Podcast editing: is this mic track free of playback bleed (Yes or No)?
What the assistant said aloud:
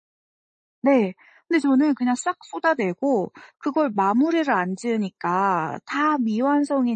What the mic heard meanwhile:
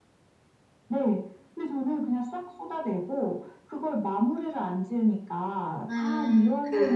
No